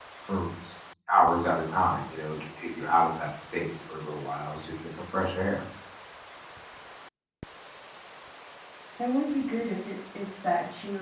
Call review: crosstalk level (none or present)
none